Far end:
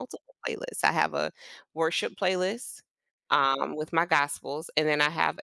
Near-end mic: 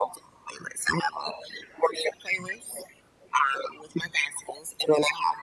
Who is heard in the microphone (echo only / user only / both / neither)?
echo only